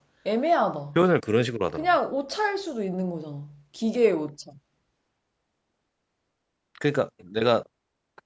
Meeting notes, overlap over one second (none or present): none